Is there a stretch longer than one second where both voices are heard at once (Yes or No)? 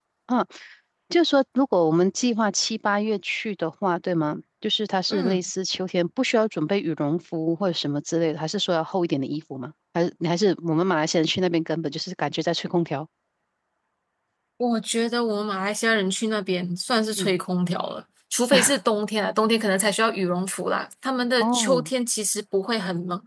No